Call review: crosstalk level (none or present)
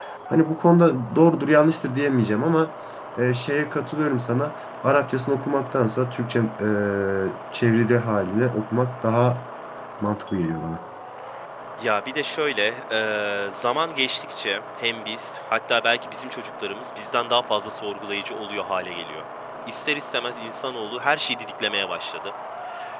none